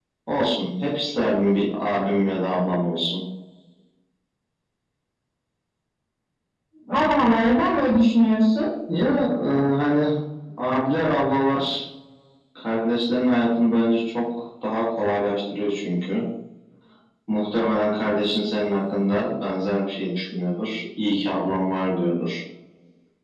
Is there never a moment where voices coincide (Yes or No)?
Yes